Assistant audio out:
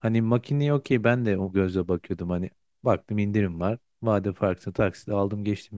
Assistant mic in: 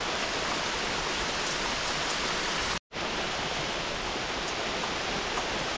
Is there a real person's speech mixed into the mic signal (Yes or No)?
No